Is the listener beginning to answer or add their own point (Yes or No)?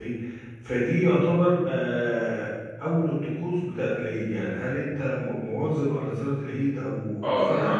Yes